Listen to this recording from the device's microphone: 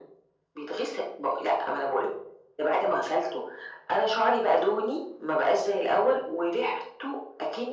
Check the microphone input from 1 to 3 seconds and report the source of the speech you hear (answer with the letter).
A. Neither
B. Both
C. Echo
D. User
C